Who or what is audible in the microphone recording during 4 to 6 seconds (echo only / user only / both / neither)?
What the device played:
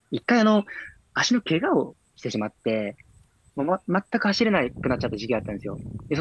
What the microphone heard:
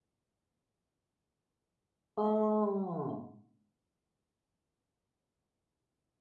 neither